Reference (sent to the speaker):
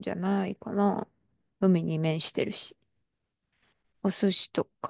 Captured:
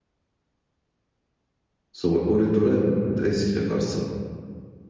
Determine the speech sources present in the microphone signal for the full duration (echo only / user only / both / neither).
user only